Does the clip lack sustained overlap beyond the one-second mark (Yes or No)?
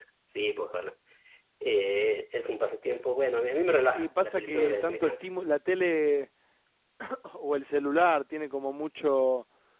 No